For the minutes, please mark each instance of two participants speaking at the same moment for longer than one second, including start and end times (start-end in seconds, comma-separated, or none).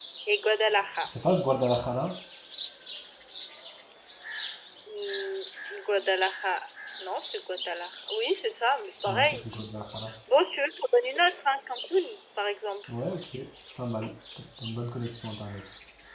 none